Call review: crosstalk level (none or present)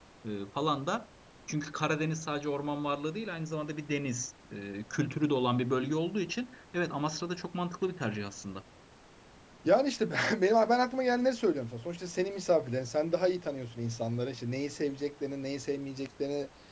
none